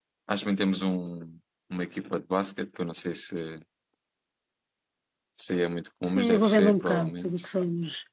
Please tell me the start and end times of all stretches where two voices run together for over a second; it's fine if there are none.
6.2-7.4

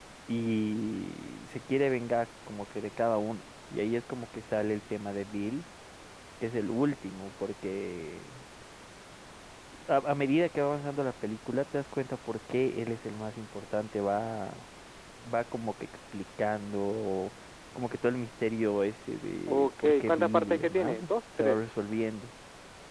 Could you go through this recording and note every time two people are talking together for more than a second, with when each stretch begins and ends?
19.5-21.0

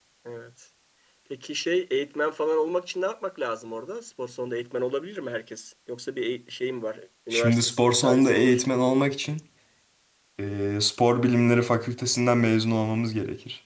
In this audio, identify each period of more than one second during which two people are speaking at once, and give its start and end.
7.3-8.6

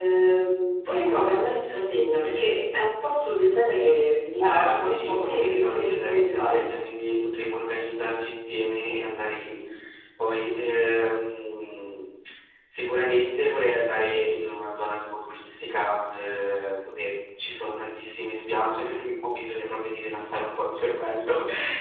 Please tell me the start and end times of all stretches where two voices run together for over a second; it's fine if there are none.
4.4-6.6

